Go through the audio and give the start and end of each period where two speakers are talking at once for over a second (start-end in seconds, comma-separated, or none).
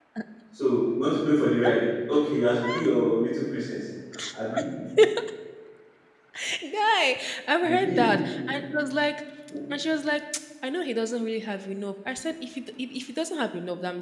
none